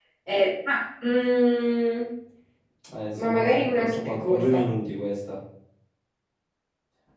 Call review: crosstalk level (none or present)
present